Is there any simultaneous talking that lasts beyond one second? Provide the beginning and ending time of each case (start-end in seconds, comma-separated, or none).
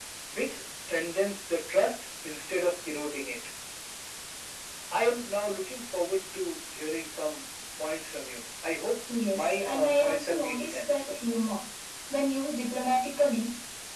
9.3-11.0